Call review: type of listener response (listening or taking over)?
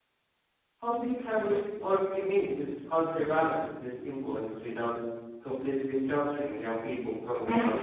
taking over